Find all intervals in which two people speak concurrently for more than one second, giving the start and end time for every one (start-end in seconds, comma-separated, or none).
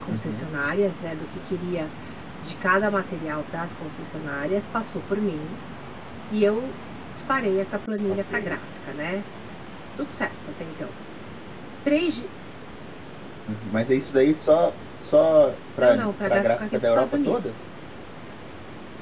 15.8-17.6